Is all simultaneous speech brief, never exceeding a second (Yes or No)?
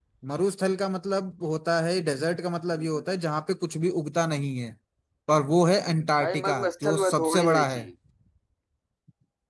No